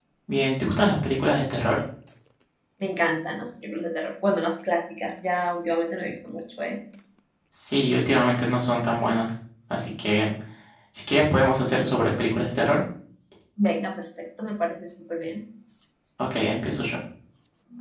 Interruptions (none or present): none